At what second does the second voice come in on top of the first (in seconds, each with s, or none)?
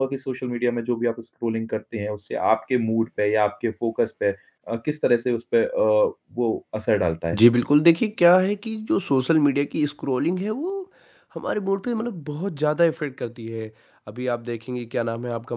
none